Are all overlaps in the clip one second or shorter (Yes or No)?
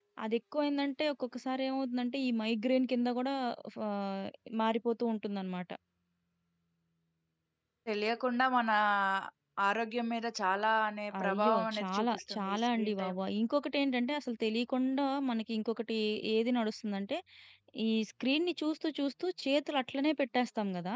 No